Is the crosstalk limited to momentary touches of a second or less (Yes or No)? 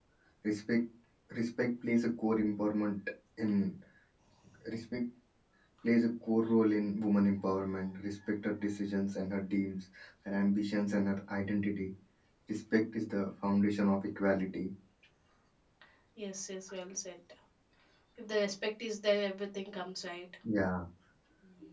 Yes